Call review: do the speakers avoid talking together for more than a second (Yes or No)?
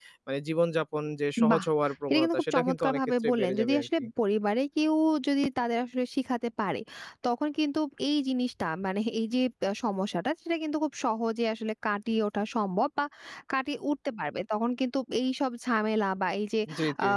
No